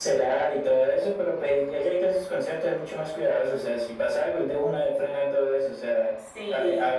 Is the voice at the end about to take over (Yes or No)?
No